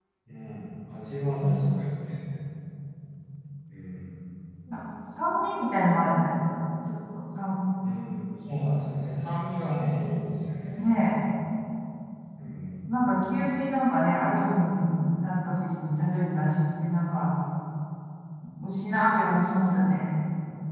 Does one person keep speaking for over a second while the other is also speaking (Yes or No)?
No